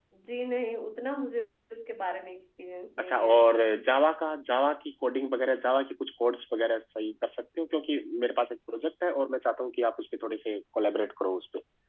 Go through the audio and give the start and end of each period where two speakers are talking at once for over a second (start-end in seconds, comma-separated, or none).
none